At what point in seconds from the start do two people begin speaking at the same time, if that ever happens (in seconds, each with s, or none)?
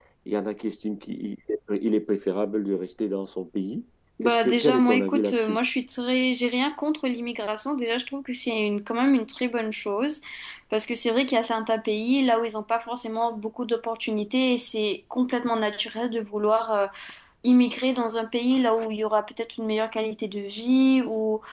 4.2 s